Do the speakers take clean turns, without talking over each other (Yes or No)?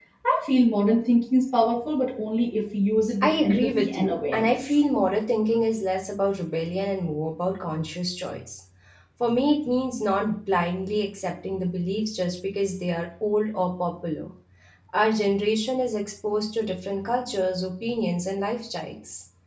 No